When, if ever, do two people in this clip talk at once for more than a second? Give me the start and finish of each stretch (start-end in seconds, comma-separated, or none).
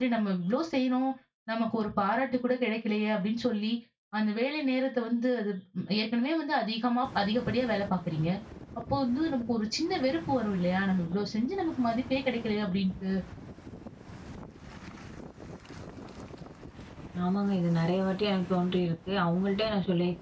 none